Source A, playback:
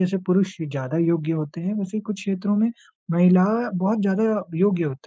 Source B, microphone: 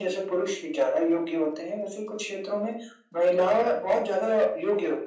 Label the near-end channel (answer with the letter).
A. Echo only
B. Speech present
A